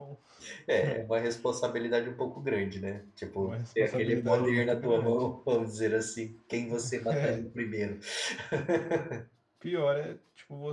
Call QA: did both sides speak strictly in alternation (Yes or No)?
No